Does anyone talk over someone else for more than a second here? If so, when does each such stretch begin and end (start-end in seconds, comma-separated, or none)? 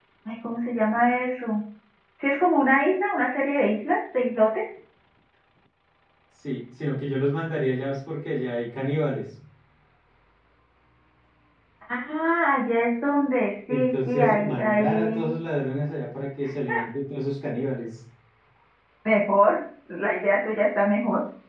13.7-15.3